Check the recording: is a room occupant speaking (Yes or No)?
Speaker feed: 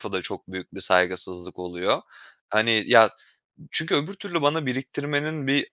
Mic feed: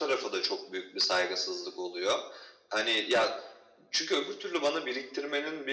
No